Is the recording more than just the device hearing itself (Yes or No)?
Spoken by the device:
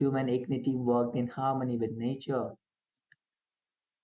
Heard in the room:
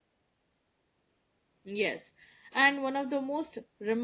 Yes